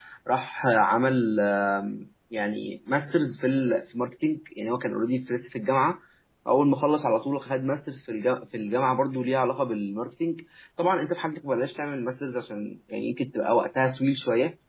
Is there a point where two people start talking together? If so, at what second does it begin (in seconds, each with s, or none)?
none